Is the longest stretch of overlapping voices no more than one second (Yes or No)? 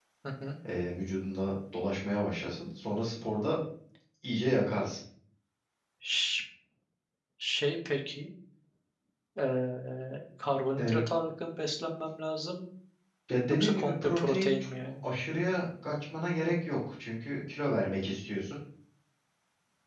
No